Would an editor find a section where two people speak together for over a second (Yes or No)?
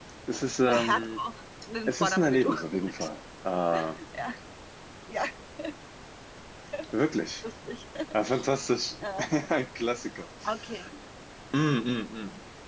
Yes